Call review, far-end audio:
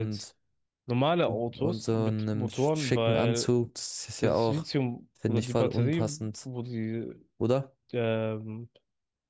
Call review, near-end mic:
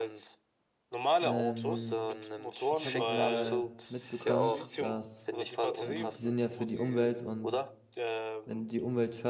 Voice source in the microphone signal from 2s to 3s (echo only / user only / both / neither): both